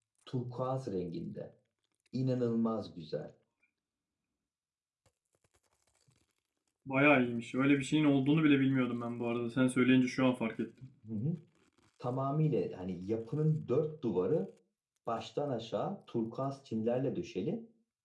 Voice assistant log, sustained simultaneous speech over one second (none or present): none